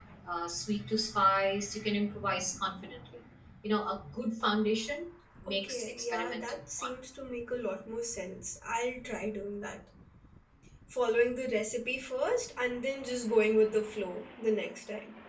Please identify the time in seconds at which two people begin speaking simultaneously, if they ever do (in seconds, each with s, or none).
5.5 s